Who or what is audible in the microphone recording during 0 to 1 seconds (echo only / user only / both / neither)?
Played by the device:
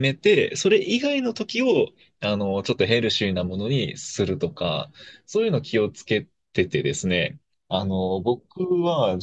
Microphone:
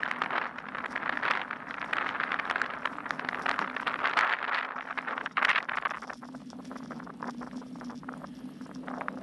neither